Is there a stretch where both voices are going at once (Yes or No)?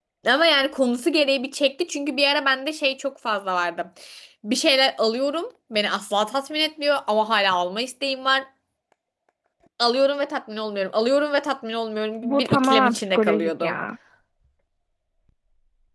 Yes